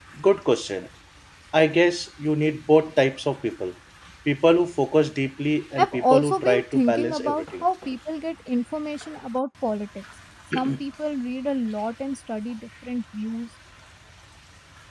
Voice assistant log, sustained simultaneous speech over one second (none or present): present